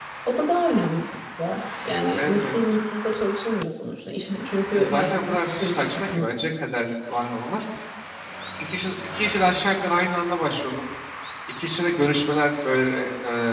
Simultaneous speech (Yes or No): Yes